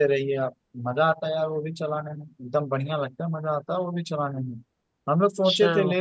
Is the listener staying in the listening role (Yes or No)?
Yes